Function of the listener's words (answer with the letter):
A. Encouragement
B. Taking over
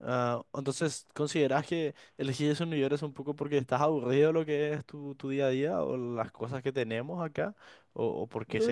B